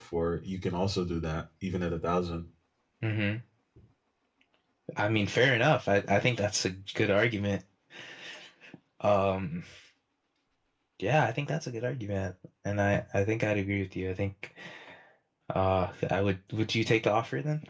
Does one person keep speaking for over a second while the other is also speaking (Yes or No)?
No